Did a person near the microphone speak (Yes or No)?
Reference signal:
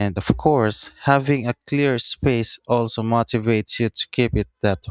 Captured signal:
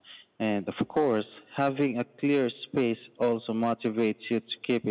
No